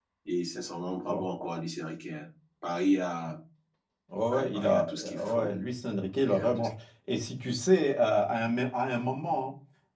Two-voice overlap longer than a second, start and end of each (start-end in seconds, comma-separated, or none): 4.3-5.5